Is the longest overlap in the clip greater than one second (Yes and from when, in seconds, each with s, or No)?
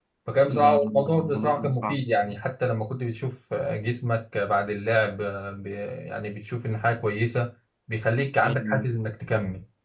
Yes, from 0.6 s